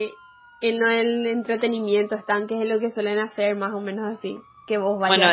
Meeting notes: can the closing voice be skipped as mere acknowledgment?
No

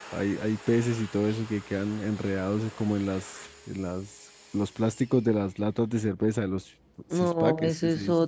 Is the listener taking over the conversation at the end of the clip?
Yes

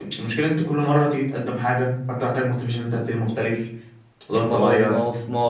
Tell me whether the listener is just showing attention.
No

